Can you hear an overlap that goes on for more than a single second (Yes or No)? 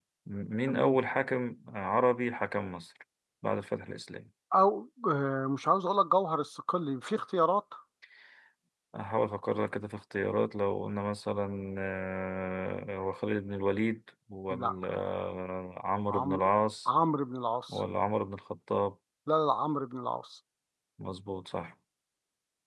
No